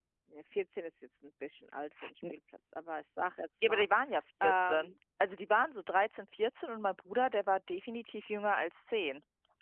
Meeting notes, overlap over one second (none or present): none